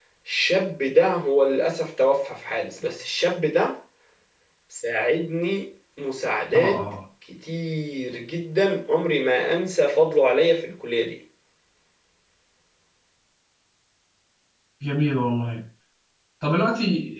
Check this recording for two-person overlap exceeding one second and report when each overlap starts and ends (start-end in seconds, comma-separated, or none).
none